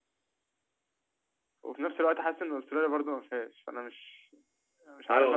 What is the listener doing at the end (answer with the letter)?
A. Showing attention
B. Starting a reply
B